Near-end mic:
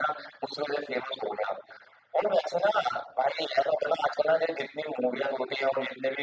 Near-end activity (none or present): none